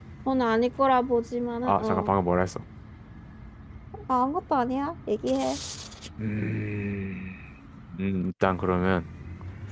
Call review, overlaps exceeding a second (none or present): none